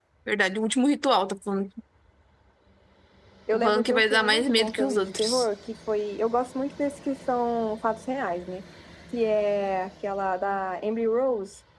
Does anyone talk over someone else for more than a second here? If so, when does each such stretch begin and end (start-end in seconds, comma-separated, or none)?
3.5-5.5